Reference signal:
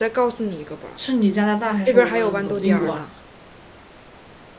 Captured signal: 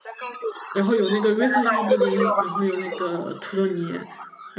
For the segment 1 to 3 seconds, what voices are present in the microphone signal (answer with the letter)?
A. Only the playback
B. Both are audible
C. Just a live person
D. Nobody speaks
B